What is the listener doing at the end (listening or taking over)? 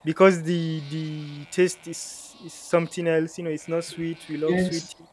listening